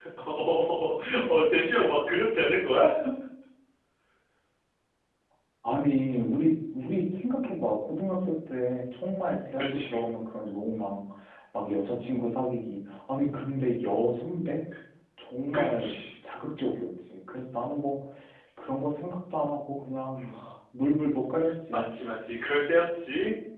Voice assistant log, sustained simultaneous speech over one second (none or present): none